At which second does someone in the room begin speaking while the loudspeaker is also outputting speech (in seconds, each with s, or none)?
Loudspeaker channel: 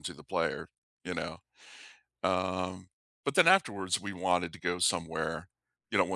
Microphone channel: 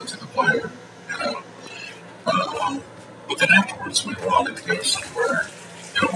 none